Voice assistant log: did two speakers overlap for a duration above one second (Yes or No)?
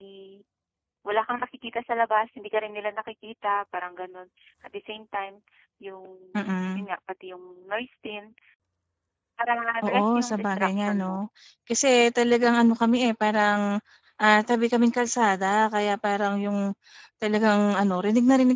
Yes